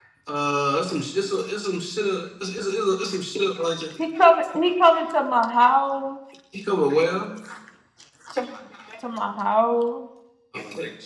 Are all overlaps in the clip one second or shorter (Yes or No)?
Yes